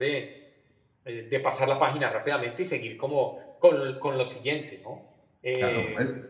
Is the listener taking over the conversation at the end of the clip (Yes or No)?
Yes